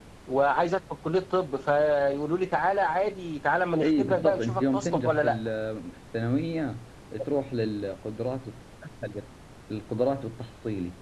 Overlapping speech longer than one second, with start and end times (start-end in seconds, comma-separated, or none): 3.8-5.4